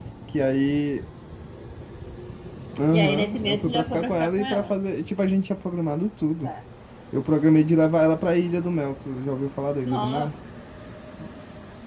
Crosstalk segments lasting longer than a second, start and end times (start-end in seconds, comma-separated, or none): 2.9-4.8